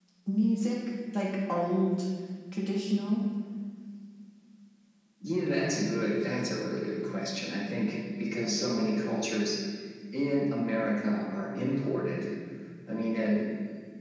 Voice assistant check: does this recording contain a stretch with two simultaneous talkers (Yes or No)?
No